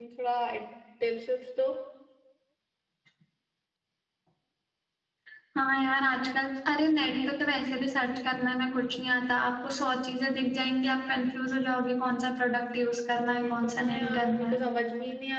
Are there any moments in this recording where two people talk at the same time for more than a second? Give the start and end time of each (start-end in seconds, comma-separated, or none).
13.2-14.6